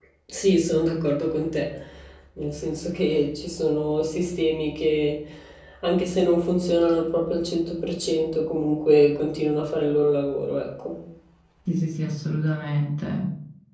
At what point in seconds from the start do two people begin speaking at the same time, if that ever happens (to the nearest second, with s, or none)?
none